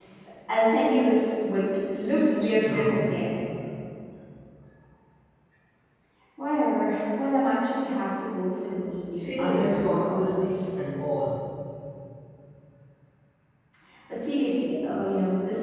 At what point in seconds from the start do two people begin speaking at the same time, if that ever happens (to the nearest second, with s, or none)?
2 s